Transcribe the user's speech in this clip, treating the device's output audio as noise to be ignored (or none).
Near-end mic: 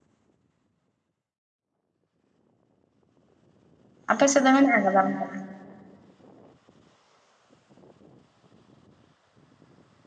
ᱟᱯᱮ ᱥᱮᱫ ᱫᱚ ᱢᱮᱱᱟᱜ ᱟᱠᱟᱫᱟ ᱚᱱᱠᱟ